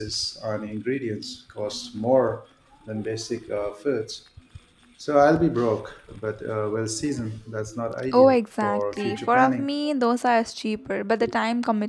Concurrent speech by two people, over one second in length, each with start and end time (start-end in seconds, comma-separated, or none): 8.1-9.7